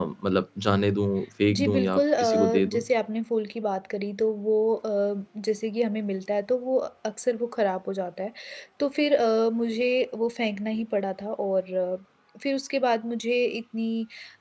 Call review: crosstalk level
present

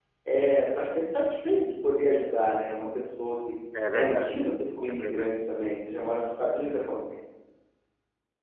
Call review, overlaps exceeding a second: none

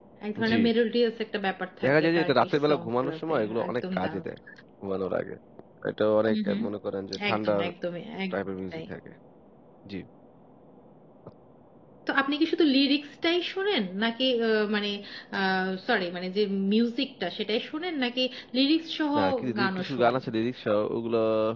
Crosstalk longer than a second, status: present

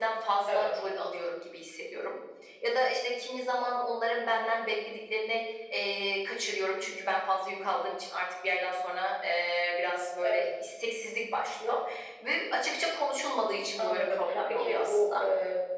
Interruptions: present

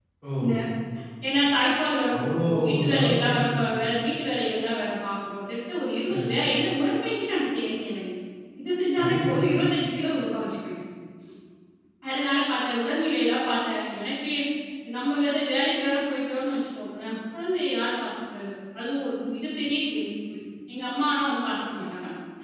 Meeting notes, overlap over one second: present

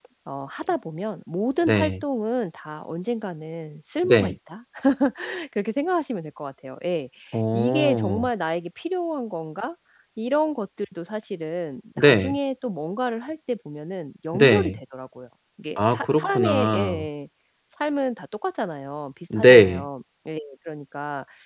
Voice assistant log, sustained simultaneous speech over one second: present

